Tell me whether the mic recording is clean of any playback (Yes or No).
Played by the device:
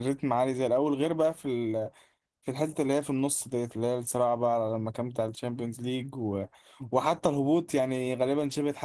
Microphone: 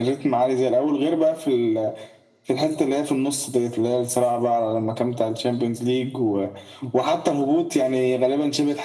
No